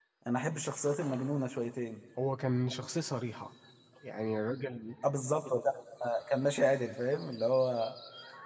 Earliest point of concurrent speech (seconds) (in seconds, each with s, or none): none